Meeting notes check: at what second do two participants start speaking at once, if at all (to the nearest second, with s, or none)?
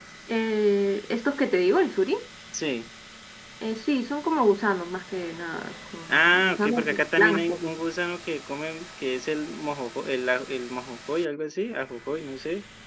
6 s